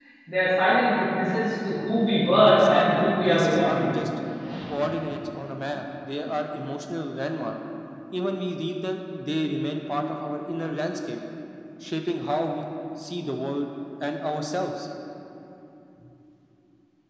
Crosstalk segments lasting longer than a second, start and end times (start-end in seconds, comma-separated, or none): 2.4-4.0